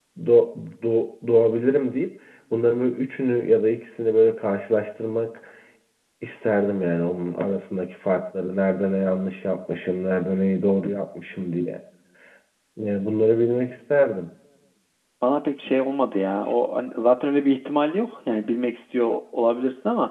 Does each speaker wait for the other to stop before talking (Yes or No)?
Yes